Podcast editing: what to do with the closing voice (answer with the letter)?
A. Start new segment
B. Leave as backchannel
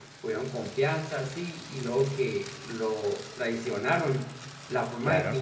B